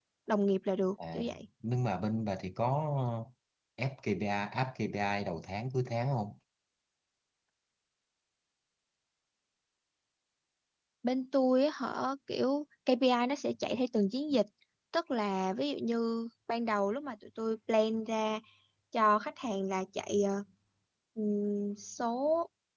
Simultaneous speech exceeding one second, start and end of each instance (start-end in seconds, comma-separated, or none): none